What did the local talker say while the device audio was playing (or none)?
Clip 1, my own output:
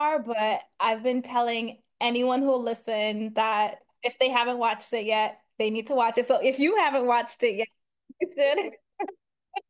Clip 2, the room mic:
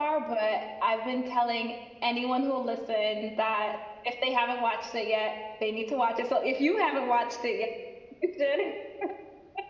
none